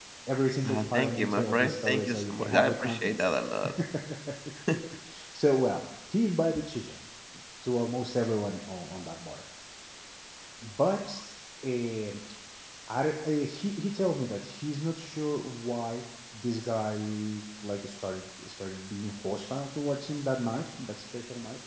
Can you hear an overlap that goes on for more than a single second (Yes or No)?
Yes